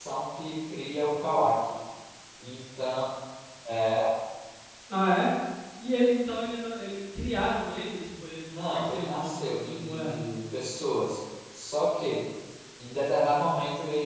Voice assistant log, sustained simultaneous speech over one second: present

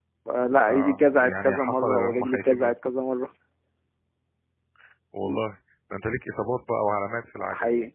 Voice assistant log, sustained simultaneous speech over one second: present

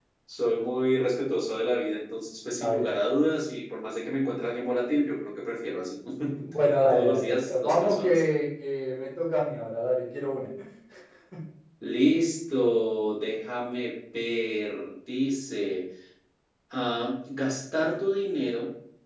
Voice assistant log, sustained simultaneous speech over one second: present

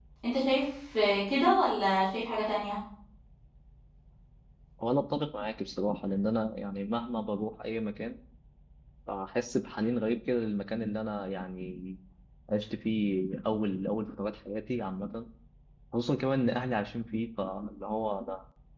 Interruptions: none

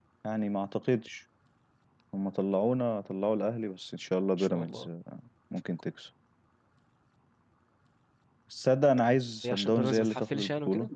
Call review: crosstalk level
present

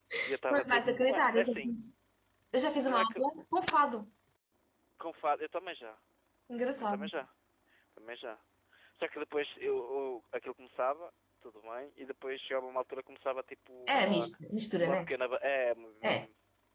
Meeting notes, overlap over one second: present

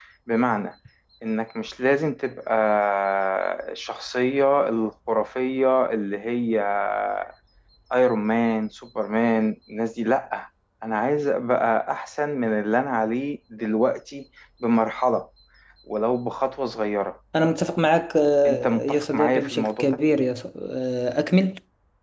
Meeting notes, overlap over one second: present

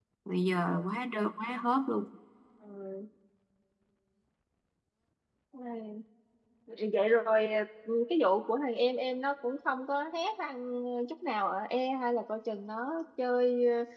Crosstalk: none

